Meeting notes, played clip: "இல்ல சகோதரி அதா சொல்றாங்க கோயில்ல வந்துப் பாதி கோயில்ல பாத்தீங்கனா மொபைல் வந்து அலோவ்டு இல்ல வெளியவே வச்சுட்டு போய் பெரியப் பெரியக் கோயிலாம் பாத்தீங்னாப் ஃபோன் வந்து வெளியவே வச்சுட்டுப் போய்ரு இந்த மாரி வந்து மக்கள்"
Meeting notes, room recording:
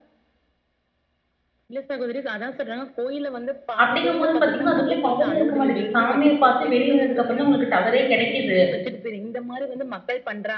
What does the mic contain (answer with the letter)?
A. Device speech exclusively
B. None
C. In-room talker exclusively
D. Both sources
D